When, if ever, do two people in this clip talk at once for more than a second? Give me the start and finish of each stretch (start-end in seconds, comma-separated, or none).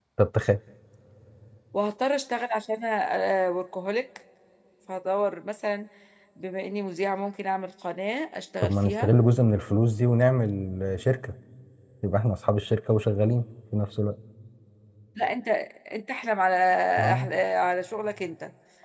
none